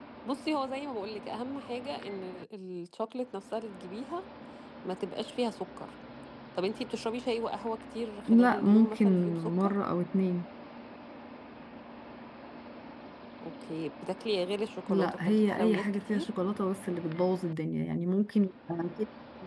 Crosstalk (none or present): present